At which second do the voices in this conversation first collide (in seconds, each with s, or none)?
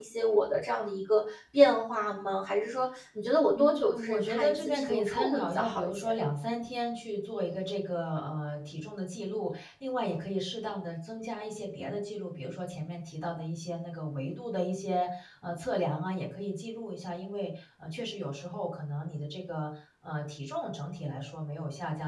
3.5 s